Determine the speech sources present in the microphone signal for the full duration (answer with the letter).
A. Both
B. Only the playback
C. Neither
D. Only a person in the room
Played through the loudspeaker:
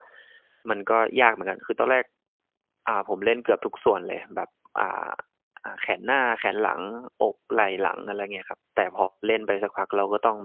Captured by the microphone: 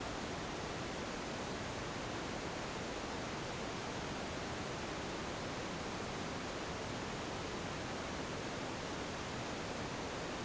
C